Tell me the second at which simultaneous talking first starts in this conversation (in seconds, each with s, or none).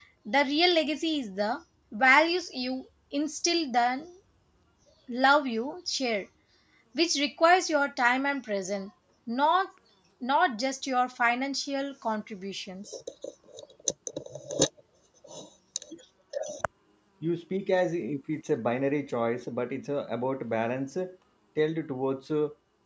none